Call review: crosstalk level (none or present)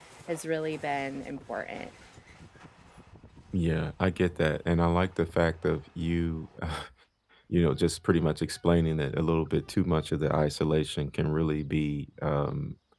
none